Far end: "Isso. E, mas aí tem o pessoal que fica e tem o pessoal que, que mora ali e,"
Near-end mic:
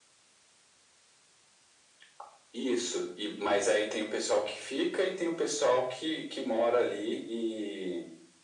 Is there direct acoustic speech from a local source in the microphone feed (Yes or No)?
No